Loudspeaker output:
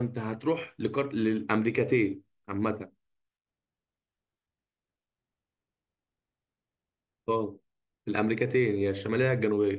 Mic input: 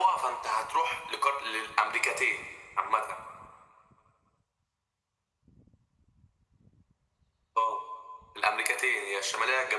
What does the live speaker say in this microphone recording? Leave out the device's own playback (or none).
none